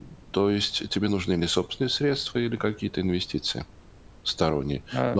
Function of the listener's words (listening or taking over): listening